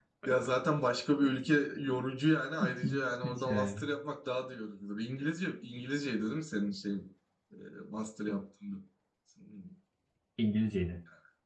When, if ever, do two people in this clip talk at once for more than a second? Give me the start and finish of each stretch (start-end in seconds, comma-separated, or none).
2.6-3.9